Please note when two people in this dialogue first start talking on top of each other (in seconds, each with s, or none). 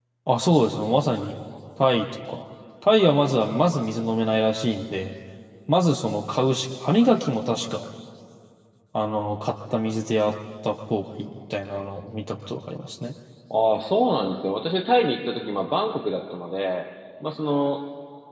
none